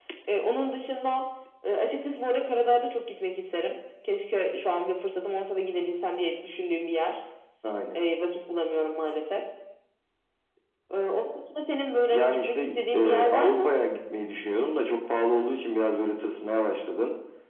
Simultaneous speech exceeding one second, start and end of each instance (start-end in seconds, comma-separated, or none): 12.1-13.7